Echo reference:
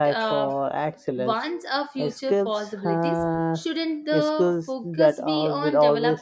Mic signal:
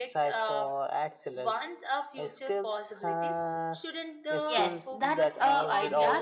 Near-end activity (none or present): present